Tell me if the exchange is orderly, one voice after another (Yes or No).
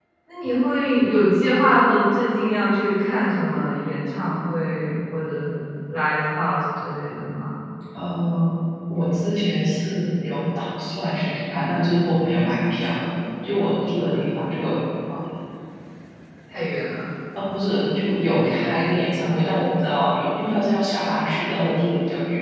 Yes